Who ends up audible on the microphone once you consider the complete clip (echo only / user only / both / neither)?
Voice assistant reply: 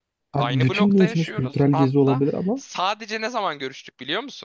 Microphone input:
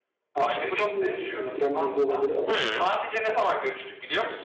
both